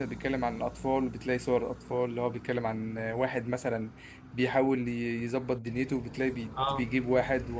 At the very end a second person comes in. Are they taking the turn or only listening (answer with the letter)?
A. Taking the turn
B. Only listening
B